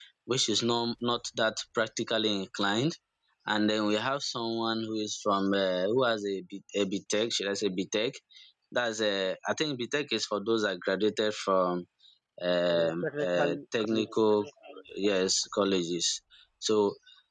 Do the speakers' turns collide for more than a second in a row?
Yes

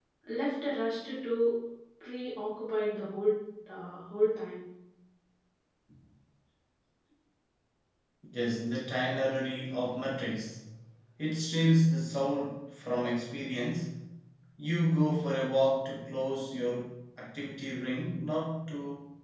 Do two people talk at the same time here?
No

